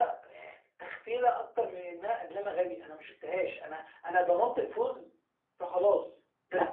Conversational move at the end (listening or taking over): listening